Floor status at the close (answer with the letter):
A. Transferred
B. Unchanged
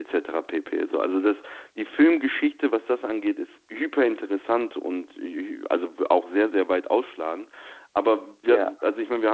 B